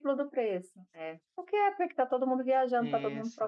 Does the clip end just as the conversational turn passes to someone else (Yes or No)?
Yes